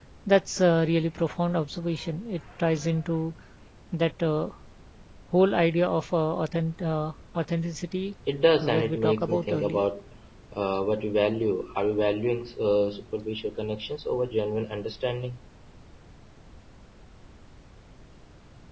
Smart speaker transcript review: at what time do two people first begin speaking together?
8.6 s

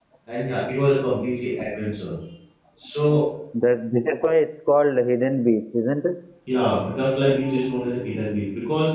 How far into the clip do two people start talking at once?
none

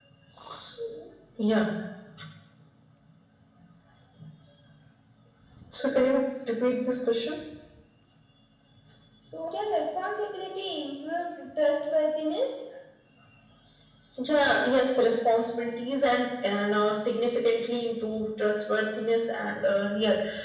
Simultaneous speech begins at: none

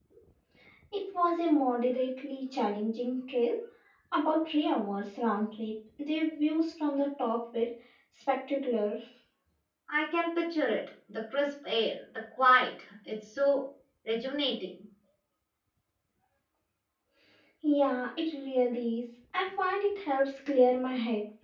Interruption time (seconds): none

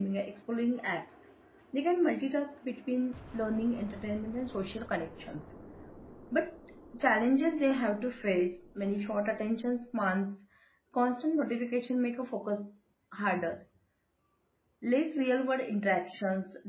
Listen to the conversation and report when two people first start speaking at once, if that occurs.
none

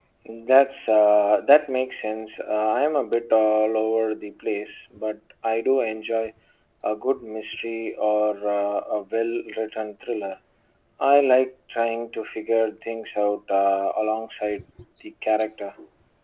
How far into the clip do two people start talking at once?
none

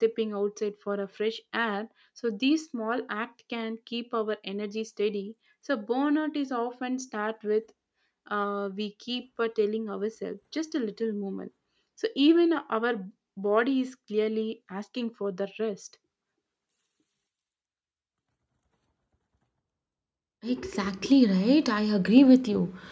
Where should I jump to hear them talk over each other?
none

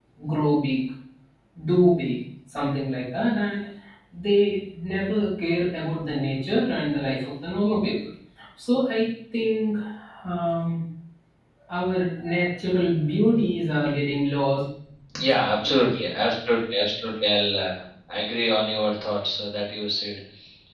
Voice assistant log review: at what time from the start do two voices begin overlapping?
none

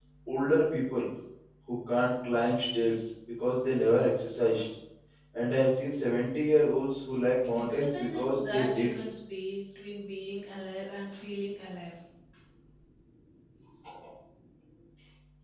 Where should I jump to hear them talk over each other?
7.5 s

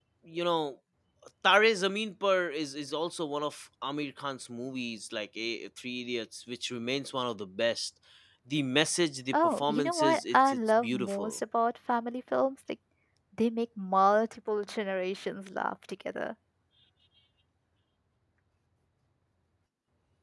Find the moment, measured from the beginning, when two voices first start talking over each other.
9.3 s

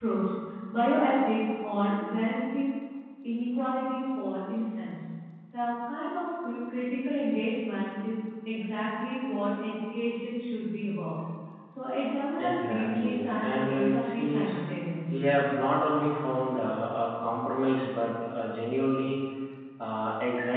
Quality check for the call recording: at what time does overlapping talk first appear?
12.4 s

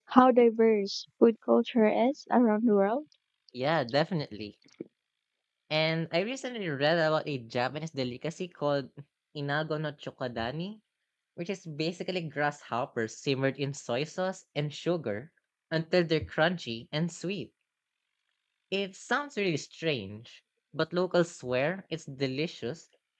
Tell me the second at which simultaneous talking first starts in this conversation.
none

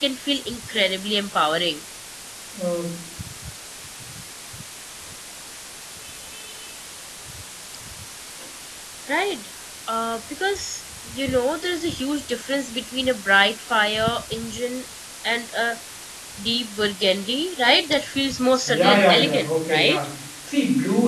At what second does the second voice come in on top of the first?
18.7 s

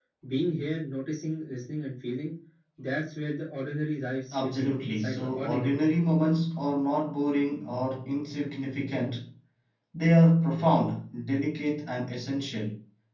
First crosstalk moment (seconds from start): 4.3 s

